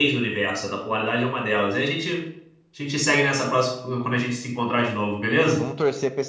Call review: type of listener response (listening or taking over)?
taking over